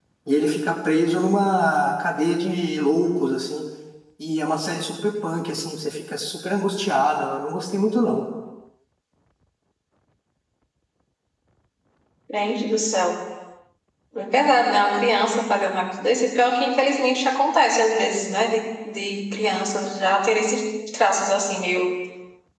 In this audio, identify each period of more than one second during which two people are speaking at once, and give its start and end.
none

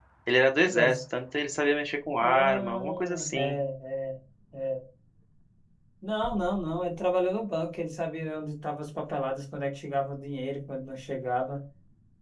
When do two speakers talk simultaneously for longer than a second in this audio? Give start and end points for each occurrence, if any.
2.2-3.6

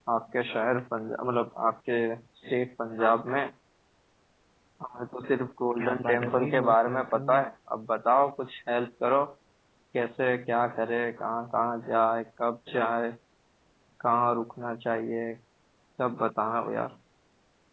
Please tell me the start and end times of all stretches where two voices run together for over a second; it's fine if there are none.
5.8-7.4

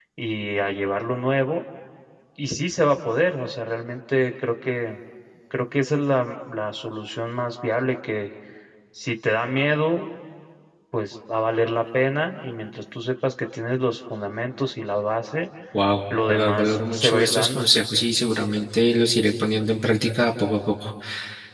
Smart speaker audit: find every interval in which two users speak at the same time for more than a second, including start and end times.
16.1-17.6

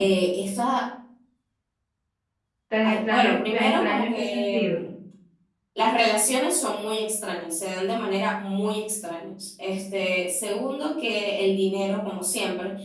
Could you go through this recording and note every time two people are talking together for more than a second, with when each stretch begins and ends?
2.8-4.8

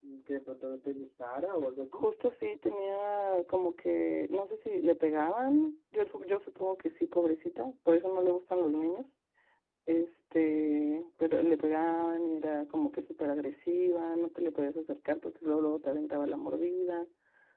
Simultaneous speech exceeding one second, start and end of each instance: none

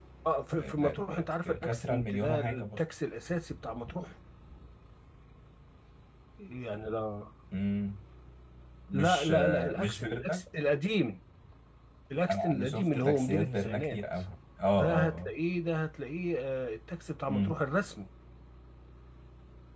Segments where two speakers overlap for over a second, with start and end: 0.6-2.8, 8.9-10.4, 12.3-14.0

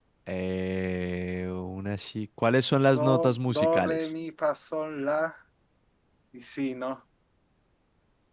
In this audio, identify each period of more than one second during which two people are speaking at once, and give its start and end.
2.9-4.1

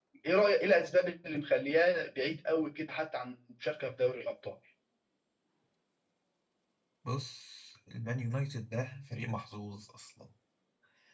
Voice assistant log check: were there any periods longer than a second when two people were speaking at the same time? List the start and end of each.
none

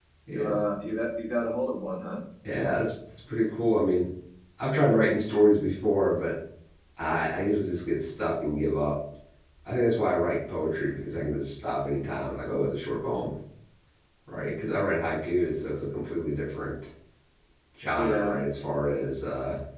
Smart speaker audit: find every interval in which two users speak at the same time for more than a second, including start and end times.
none

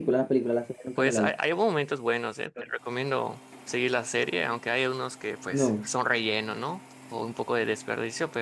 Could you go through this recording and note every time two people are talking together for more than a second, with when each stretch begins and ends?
none

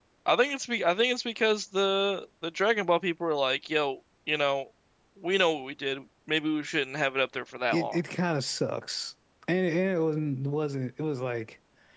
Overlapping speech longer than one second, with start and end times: none

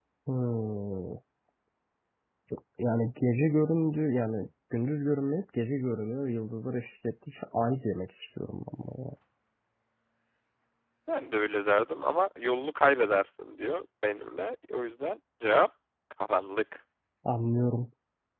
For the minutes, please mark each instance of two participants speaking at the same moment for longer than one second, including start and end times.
none

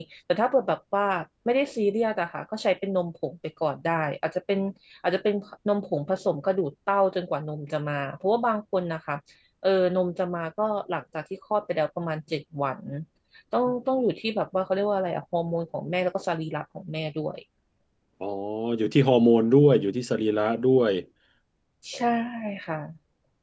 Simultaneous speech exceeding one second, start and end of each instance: none

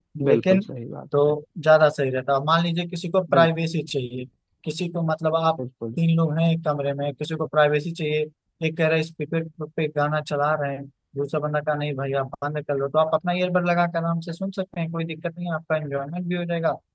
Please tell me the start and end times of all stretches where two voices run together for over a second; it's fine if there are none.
none

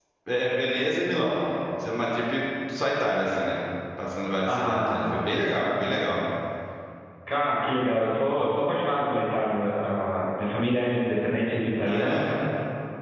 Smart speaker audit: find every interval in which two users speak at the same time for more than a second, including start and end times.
none

